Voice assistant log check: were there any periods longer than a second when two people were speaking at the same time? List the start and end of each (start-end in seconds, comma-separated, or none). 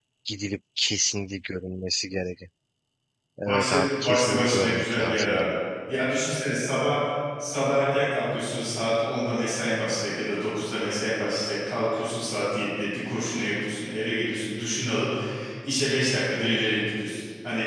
3.4-5.5